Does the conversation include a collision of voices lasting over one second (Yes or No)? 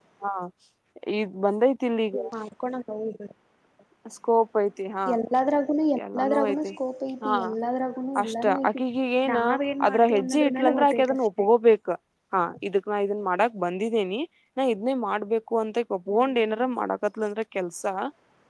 Yes